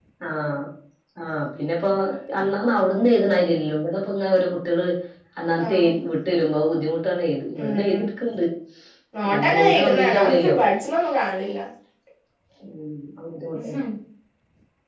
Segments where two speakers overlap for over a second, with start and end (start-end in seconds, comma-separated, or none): 9.2-10.6